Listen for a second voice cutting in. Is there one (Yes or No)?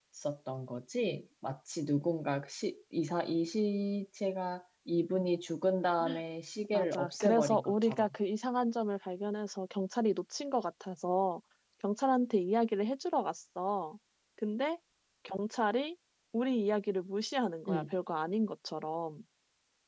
Yes